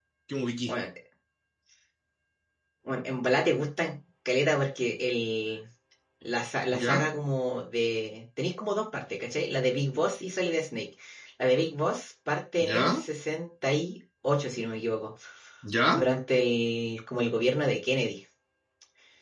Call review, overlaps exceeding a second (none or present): none